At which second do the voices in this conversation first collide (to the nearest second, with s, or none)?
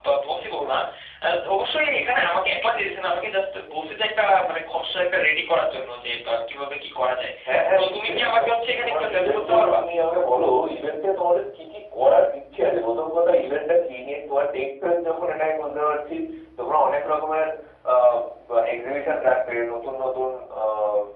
8 s